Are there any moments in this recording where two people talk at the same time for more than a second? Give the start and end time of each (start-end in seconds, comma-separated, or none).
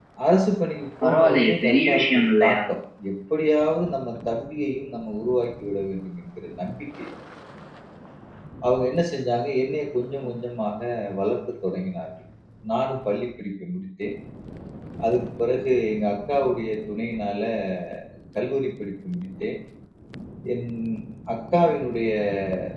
1.0-2.6